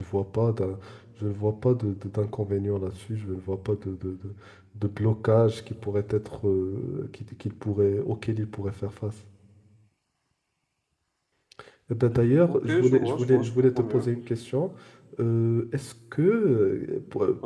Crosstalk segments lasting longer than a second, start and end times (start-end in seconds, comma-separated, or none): 12.5-14.1